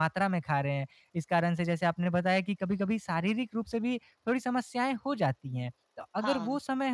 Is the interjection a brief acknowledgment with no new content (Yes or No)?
Yes